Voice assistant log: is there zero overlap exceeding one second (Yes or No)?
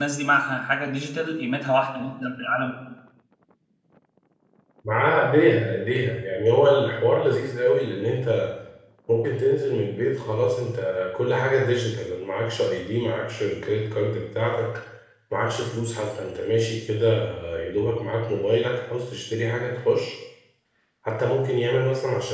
Yes